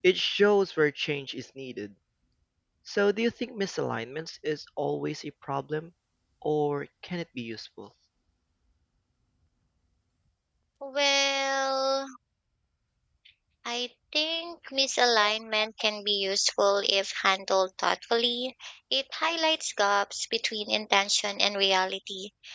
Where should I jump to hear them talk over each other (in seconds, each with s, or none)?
none